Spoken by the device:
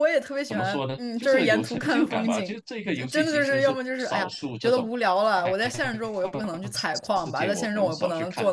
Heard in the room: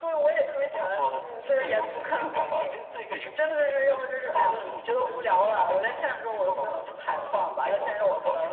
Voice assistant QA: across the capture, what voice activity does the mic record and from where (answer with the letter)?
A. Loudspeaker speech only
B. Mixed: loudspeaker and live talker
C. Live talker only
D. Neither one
B